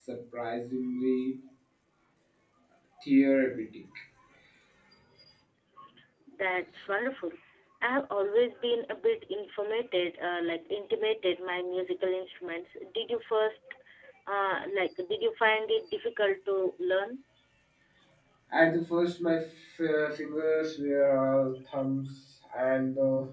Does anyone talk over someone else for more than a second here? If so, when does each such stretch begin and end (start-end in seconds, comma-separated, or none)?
none